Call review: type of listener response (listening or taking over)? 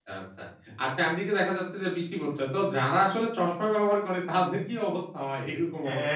taking over